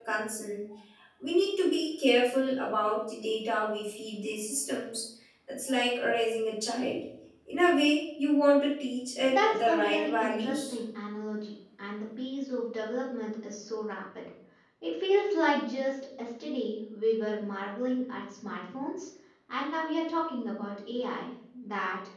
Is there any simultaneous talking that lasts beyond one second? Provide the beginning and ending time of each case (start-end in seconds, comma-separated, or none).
9.3-10.8